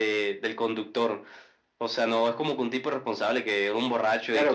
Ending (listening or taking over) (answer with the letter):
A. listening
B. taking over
B